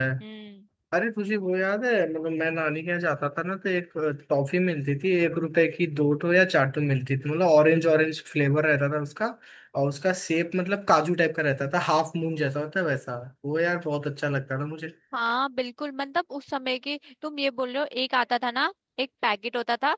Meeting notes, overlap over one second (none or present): none